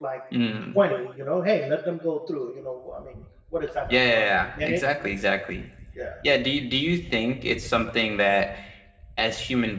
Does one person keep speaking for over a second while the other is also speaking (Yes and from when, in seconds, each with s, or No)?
Yes, from 3.9 s